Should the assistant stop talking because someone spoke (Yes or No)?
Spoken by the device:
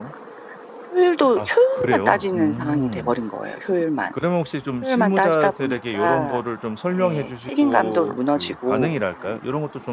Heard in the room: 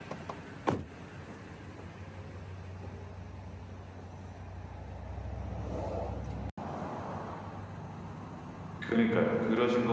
Yes